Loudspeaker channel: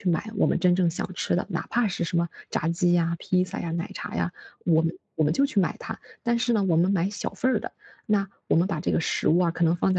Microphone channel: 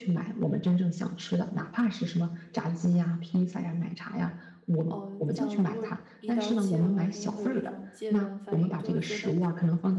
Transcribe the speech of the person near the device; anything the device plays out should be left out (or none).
嗯、像如果一刀切的话，真的会有一种戒断反应，就会觉得，